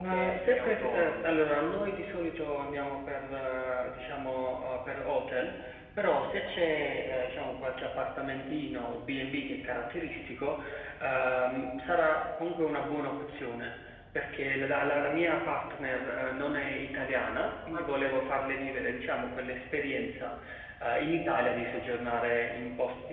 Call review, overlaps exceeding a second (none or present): present